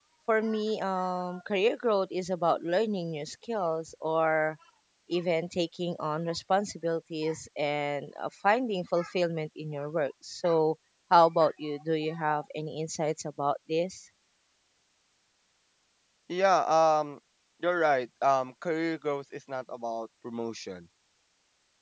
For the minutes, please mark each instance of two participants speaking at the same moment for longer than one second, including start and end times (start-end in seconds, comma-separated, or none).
none